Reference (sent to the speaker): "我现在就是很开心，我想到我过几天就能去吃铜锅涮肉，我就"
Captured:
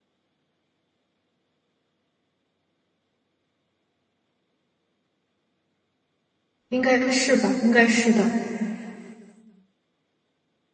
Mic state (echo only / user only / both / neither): user only